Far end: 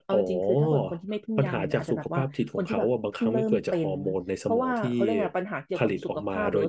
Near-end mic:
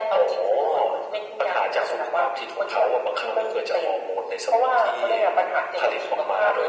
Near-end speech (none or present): none